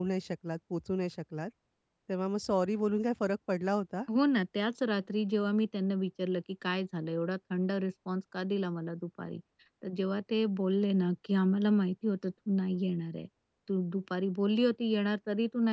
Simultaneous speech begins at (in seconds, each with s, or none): none